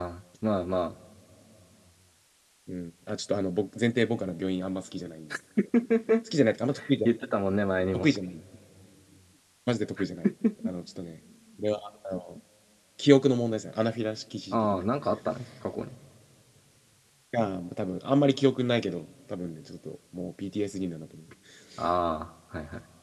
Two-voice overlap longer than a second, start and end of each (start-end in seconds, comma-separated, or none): none